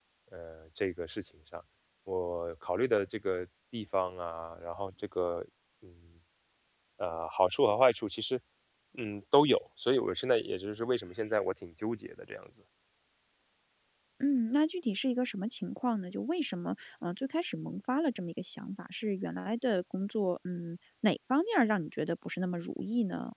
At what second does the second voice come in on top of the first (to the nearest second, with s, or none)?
none